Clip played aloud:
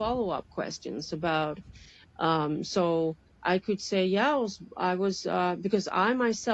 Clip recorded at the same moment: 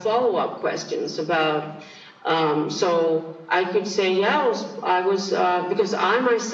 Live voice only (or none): none